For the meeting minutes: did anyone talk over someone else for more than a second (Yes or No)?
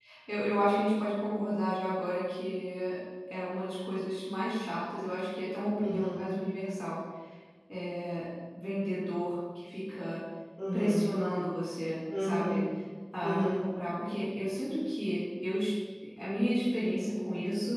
No